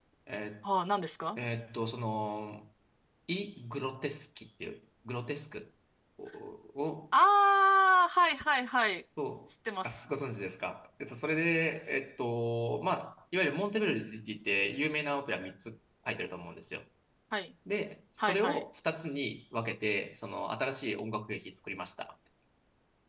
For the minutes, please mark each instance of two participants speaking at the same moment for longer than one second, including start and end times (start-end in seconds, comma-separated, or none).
none